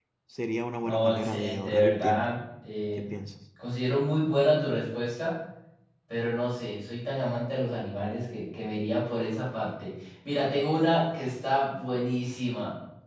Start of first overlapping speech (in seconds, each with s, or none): 0.8 s